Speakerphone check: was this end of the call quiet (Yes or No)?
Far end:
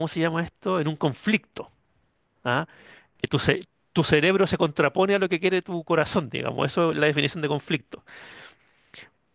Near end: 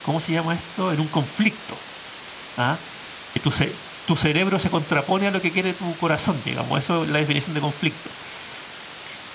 Yes